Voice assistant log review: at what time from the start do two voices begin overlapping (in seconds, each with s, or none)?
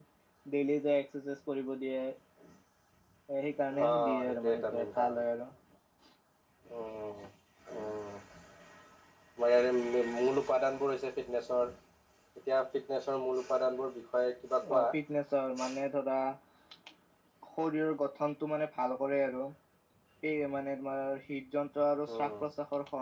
3.9 s